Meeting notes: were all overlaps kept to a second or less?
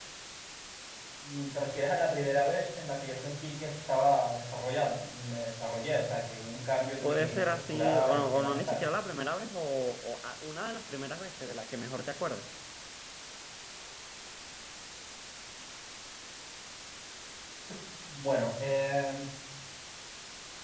No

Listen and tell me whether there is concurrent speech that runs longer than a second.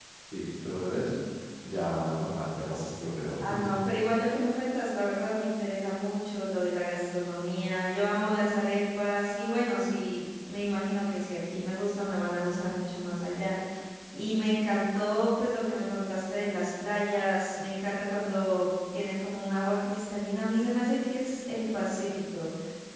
No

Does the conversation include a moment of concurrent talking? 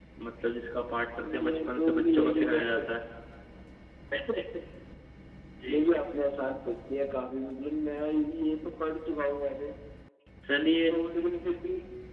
Yes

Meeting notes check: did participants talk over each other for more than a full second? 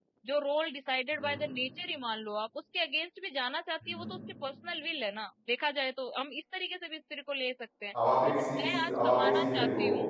Yes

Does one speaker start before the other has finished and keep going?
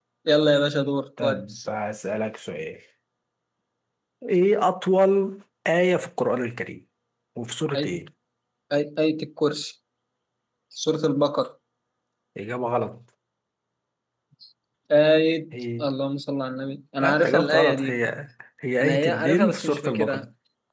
Yes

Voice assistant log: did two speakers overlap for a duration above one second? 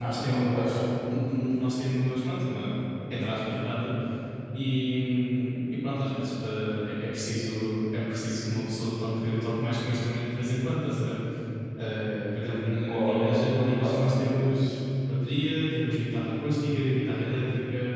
Yes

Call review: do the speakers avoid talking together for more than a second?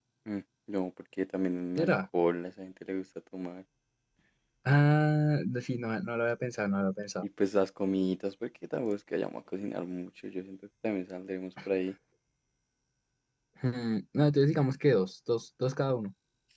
Yes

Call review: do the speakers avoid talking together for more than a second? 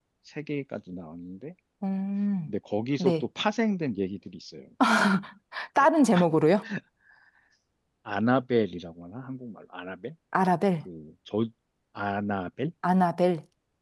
Yes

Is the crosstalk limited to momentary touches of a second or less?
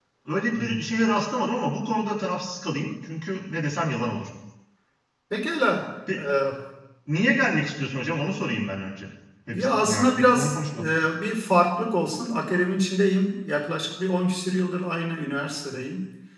No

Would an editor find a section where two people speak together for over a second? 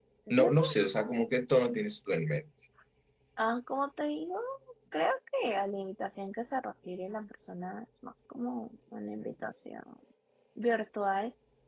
No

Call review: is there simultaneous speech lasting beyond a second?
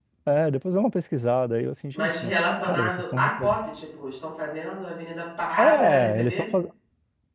Yes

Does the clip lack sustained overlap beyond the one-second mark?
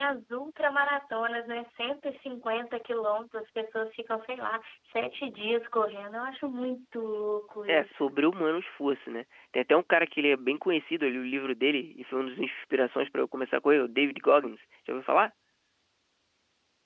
Yes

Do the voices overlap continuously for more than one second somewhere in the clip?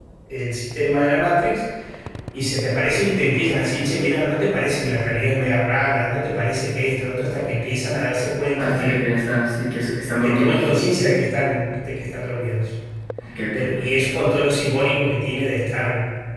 No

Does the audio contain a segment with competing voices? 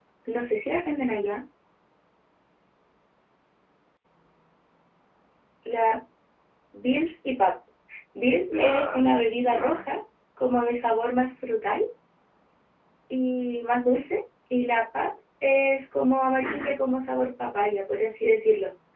Yes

